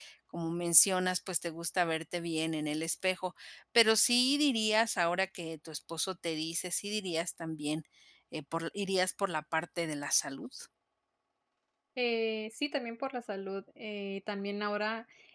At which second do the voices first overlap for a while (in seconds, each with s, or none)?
none